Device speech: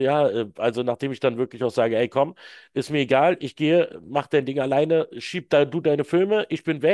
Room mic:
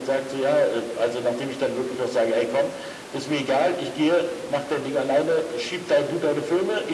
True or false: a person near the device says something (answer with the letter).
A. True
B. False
B